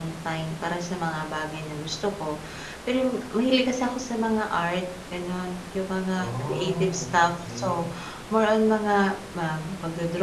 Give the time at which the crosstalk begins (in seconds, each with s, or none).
6.2 s